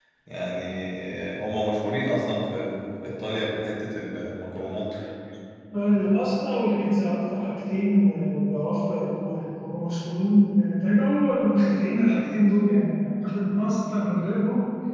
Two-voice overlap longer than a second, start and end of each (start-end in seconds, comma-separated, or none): none